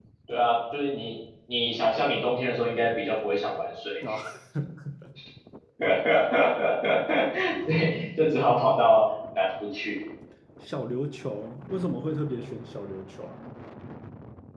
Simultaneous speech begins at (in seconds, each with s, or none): none